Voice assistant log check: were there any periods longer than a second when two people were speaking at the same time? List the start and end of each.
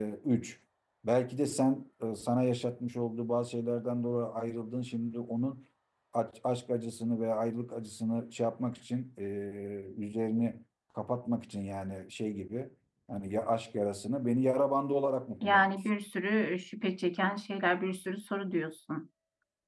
none

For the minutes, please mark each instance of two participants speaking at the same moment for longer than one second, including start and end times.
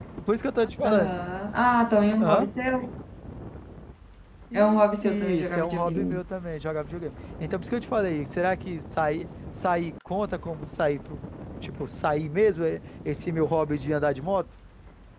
4.5-6.2

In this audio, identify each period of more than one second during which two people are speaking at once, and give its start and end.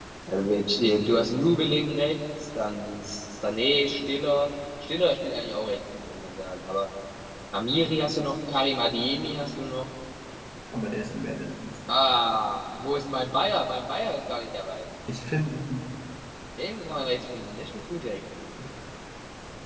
none

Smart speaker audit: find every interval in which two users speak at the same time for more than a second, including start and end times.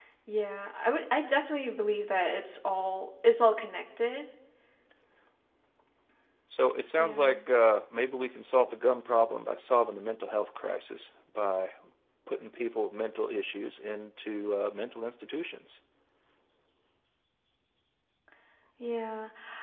none

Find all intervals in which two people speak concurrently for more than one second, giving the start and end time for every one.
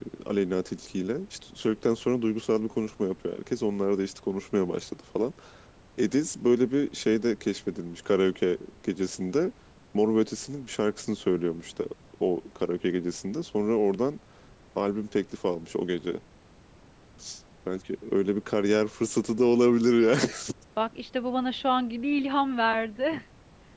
none

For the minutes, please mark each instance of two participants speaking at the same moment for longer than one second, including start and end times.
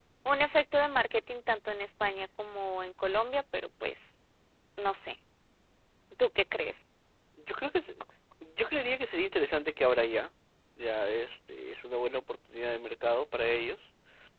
none

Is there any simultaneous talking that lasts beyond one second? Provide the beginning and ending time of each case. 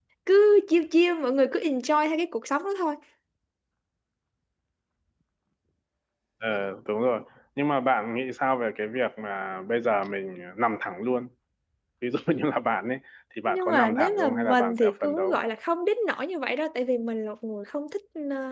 13.5-15.4

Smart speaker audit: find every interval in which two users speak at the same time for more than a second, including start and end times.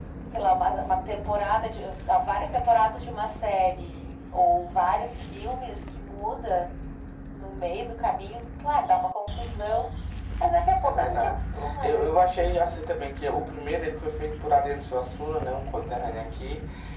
10.8-12.1

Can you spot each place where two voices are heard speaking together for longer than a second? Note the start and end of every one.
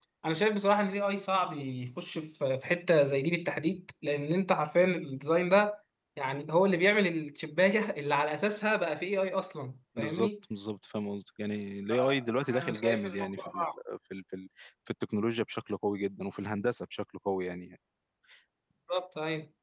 11.9-13.7

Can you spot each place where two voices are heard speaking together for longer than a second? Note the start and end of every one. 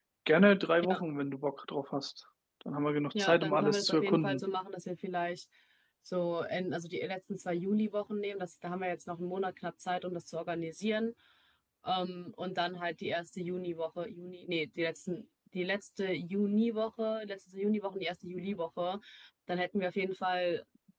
3.2-4.4

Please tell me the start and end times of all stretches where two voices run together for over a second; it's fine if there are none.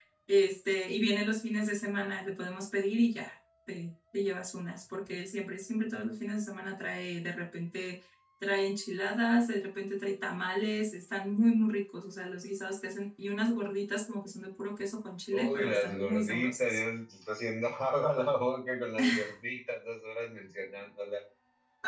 15.3-16.8

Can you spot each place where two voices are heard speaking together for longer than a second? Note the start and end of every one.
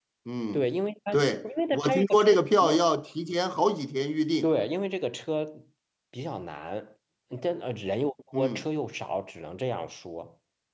1.1-2.9

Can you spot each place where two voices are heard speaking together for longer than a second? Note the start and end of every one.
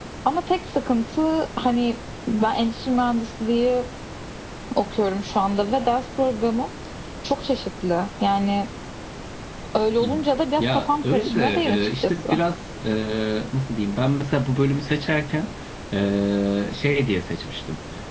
10.6-12.2

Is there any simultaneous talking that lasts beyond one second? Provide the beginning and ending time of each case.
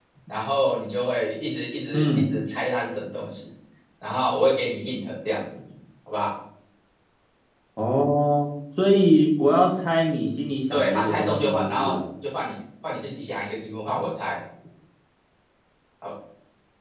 10.7-12.0

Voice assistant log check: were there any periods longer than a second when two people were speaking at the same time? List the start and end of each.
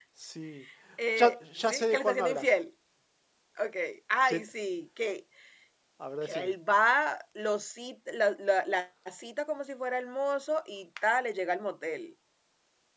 1.1-2.5

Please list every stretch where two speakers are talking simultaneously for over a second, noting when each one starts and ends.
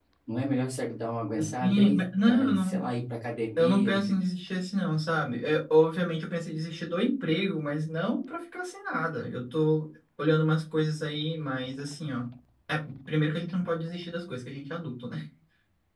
1.4-2.8

